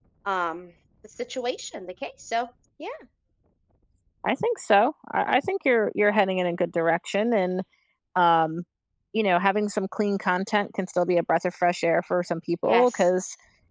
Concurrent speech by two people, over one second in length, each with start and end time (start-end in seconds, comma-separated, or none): none